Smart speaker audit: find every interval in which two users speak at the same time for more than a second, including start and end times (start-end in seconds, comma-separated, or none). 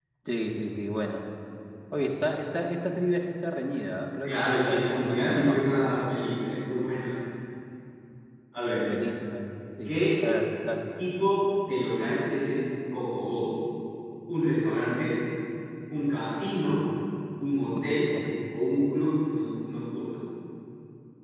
4.2-5.8